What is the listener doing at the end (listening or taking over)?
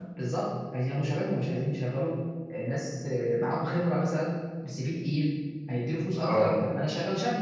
listening